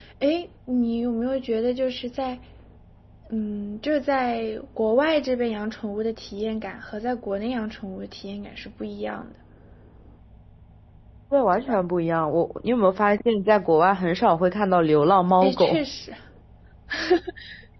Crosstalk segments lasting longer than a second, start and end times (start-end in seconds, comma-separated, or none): none